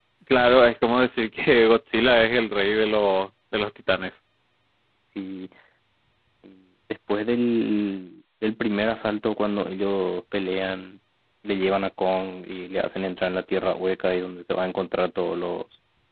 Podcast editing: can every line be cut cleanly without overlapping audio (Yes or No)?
Yes